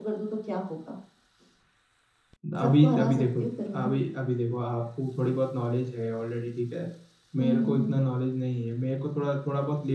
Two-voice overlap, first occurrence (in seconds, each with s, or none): 2.6 s